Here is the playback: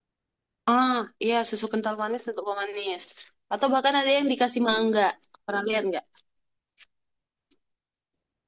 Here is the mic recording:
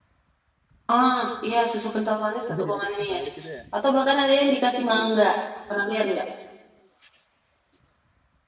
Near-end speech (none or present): present